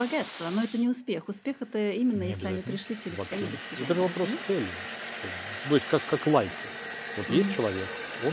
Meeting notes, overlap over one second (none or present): present